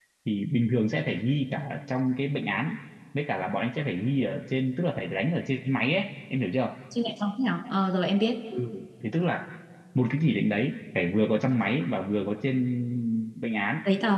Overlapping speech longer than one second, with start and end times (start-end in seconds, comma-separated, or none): none